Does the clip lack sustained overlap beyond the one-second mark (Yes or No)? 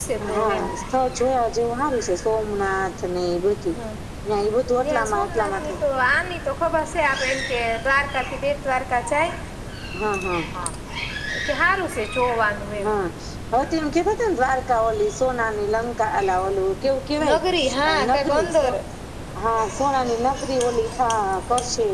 No